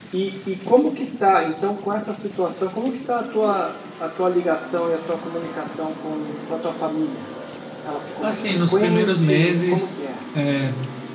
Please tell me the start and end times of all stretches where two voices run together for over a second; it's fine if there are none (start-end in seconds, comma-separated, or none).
8.2-9.9